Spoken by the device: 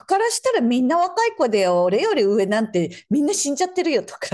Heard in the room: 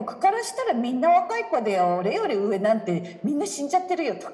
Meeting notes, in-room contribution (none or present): none